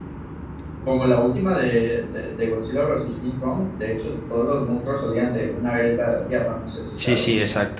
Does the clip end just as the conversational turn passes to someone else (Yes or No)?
Yes